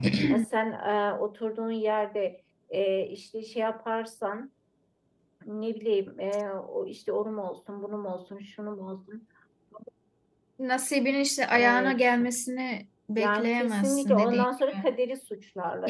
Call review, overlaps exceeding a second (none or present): present